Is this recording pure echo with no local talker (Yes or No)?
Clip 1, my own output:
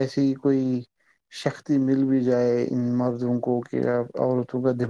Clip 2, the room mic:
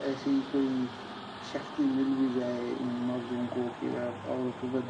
Yes